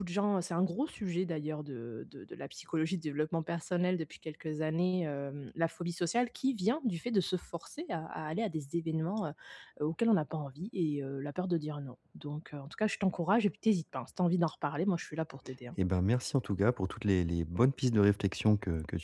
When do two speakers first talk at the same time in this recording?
none

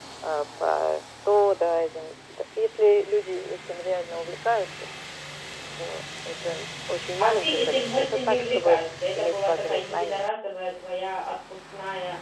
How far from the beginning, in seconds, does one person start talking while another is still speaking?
7.2 s

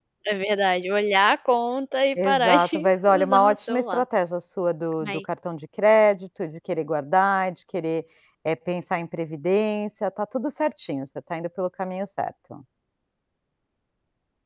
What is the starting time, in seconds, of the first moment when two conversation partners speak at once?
2.2 s

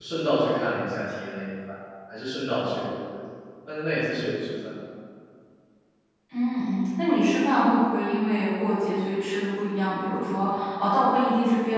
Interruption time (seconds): none

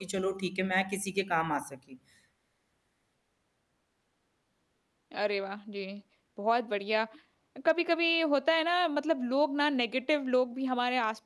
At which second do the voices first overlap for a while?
none

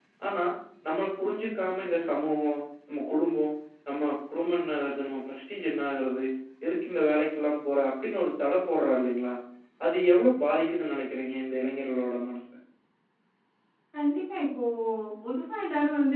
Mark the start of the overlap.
none

